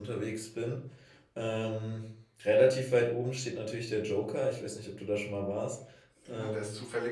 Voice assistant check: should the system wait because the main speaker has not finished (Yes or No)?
No